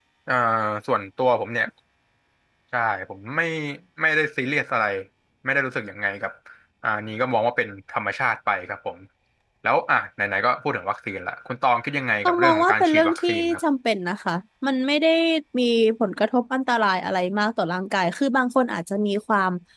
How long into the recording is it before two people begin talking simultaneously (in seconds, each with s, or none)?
12.2 s